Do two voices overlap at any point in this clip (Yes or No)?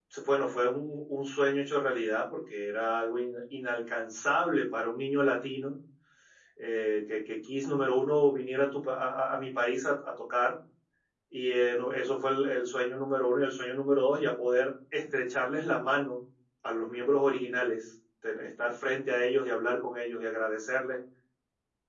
No